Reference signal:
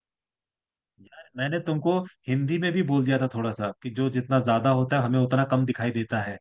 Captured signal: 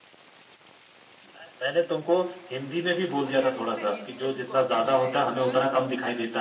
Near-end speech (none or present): present